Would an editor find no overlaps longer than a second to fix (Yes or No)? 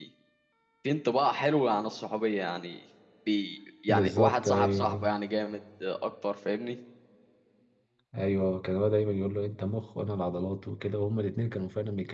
No